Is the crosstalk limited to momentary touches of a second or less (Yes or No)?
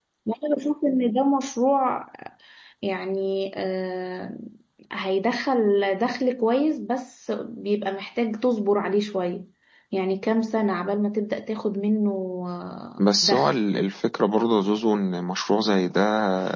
Yes